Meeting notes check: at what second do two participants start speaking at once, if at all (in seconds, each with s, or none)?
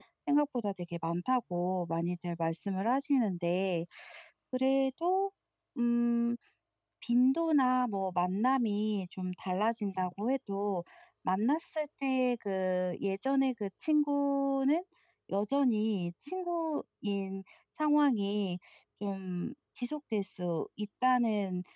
none